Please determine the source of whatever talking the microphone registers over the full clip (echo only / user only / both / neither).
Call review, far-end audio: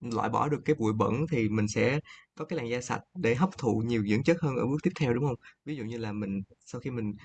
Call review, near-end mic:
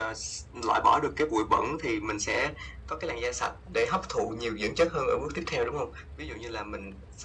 echo only